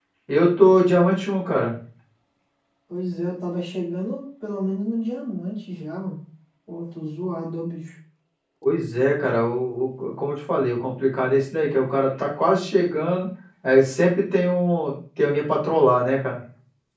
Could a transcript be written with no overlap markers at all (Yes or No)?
Yes